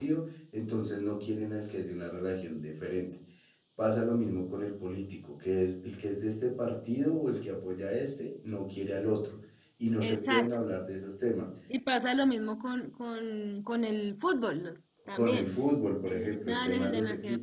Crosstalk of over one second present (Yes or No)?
Yes